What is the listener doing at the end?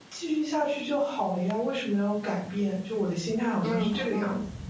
taking over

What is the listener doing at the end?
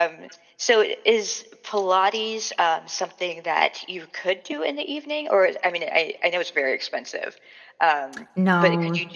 taking over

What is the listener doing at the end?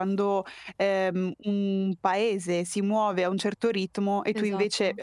listening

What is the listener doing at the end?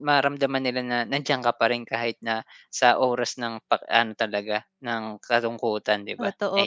taking over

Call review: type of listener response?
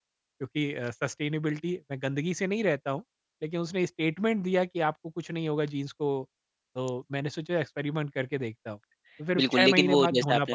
taking over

